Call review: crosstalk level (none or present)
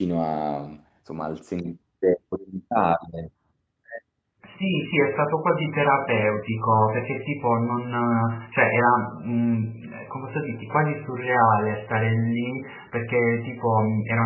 none